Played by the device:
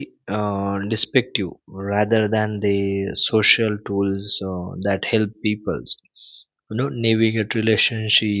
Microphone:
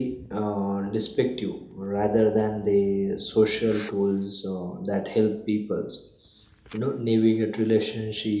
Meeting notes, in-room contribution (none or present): none